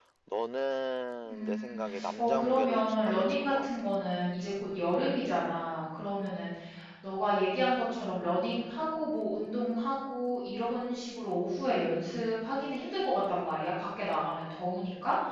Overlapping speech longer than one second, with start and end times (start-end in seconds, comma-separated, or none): 1.3-3.7